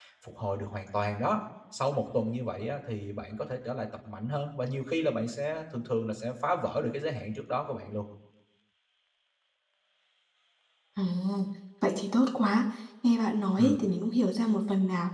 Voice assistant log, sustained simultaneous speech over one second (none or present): none